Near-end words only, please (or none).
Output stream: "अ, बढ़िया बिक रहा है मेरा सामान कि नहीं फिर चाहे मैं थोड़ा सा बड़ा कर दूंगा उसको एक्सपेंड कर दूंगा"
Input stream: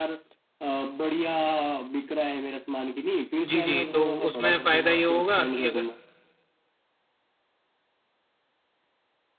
जी जी तो उसमें फ़ायदा ये होगा कि अगर